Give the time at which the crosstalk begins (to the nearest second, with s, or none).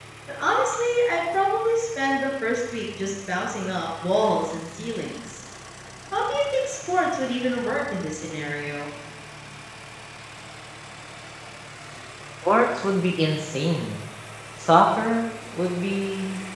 none